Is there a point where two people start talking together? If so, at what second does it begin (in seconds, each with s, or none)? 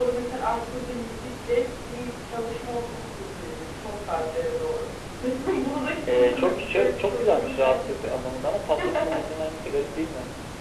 6.1 s